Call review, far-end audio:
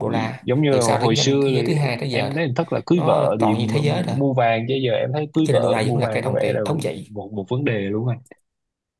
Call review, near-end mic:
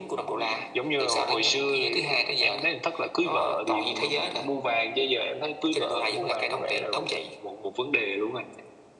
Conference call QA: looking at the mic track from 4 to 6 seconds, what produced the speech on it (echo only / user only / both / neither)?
echo only